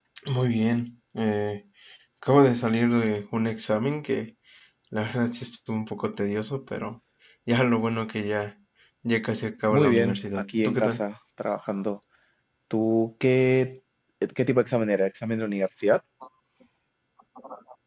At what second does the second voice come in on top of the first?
9.7 s

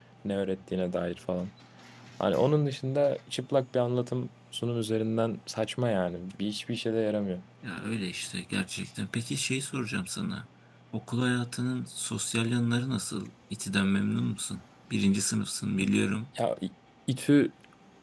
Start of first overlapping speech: none

